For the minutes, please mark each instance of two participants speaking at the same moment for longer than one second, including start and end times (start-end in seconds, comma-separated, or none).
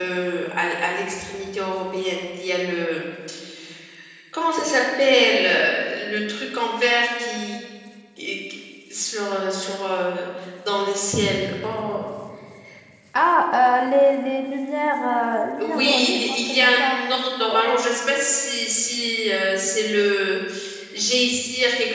15.6-17.0